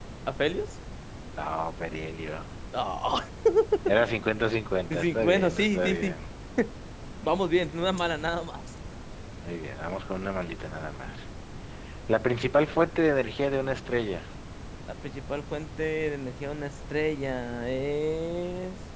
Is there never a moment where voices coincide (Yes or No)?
No